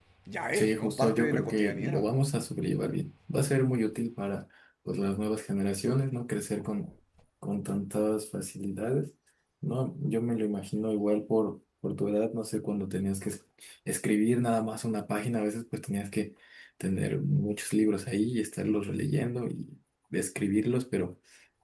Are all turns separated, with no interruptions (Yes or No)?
No